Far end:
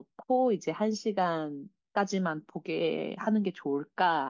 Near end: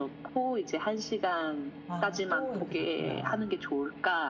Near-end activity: present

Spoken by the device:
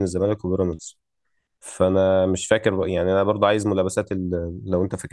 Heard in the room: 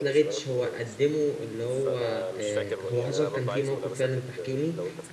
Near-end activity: present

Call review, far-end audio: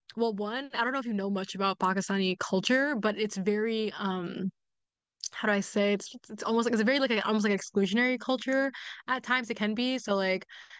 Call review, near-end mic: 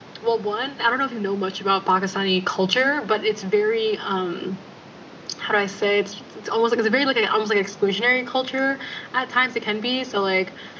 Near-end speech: none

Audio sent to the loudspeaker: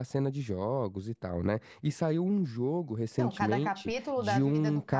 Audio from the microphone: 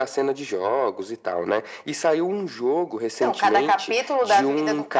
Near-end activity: none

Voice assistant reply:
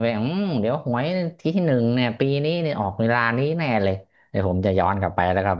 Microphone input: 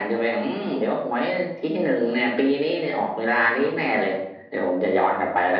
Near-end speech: none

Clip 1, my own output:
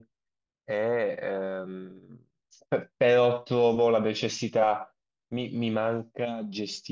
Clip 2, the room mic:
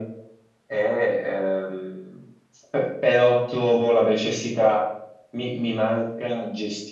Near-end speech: none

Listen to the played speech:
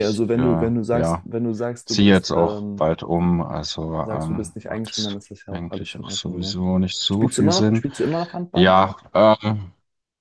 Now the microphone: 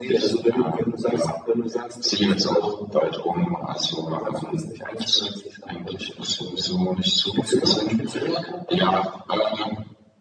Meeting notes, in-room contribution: none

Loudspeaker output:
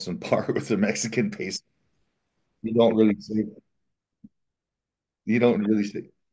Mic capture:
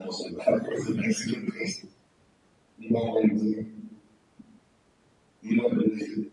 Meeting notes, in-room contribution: none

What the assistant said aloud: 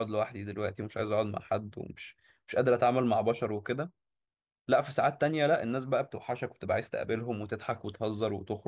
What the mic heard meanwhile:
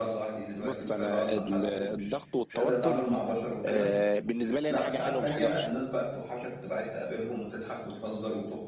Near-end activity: present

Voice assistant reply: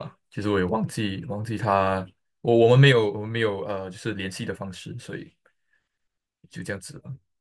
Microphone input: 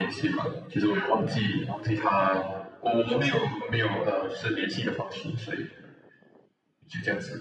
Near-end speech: none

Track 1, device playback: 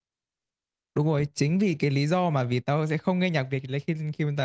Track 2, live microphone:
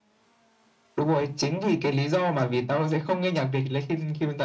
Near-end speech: none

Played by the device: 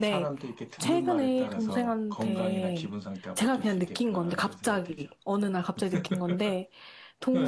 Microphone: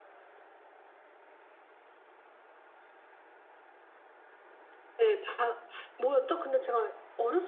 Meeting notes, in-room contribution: present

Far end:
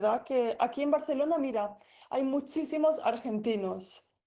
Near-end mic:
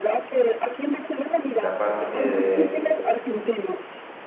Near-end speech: present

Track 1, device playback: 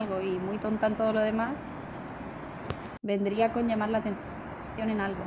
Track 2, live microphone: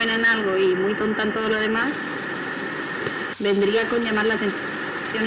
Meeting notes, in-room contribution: none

